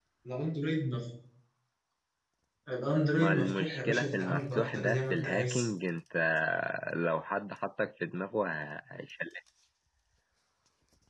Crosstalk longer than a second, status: present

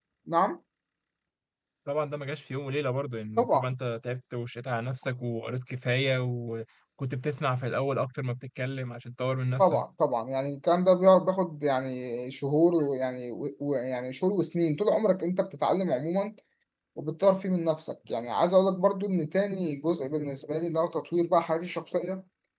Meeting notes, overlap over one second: none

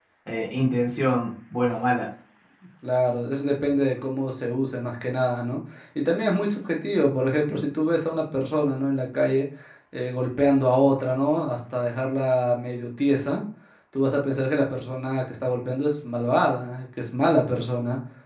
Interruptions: none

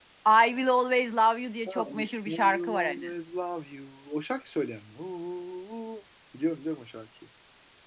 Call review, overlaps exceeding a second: present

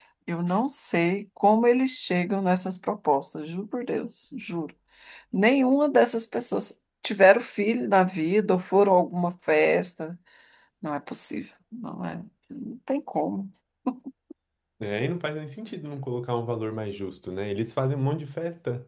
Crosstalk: none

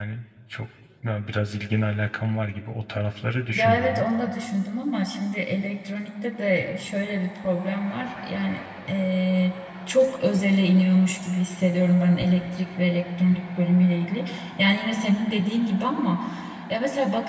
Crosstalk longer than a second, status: none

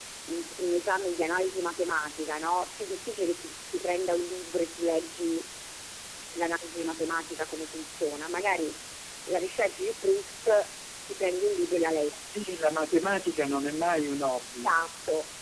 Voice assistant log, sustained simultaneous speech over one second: none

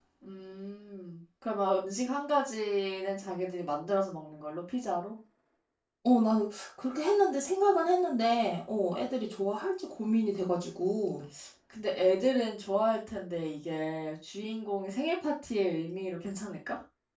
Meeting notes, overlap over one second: none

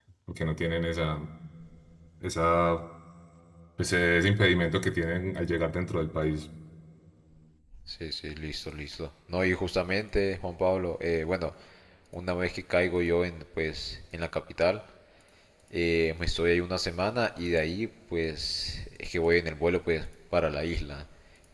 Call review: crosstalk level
none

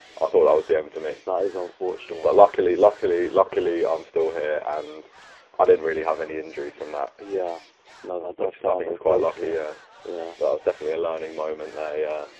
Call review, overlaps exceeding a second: present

